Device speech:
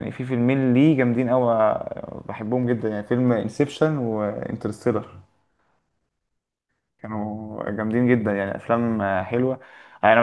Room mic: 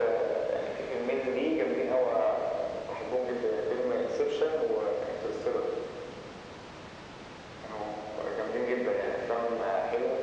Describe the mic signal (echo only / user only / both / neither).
echo only